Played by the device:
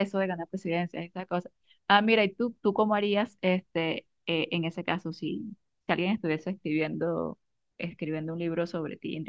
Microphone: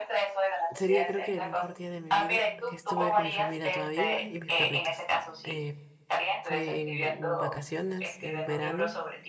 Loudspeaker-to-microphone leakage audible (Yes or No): Yes